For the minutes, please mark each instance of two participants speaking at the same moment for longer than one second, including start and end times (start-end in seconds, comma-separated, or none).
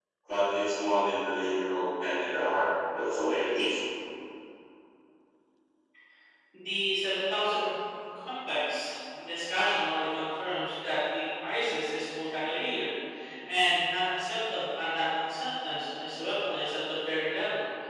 none